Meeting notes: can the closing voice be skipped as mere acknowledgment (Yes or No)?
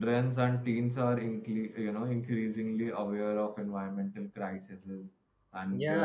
No